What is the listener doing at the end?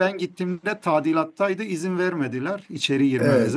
taking over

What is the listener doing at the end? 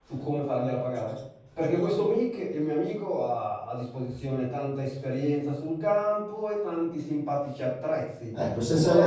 taking over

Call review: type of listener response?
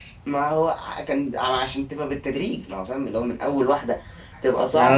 taking over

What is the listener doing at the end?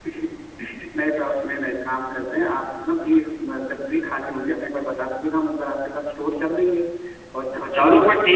taking over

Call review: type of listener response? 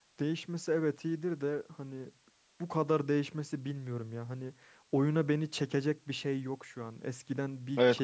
listening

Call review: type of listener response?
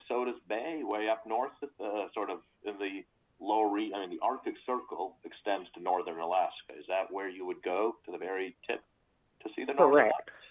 taking over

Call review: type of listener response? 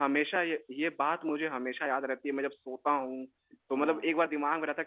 listening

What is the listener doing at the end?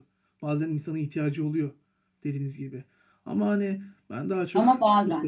listening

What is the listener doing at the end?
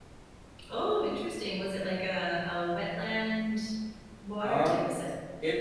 taking over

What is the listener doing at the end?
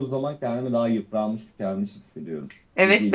taking over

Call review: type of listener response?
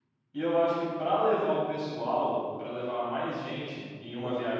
listening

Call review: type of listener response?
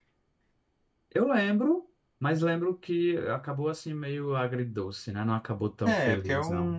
taking over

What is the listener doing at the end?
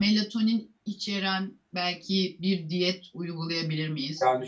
listening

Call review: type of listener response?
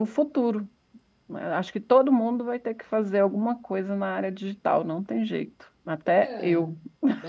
taking over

